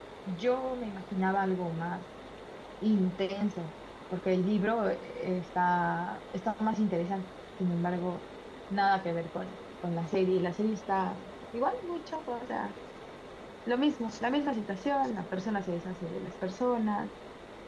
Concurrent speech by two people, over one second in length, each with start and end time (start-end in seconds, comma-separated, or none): none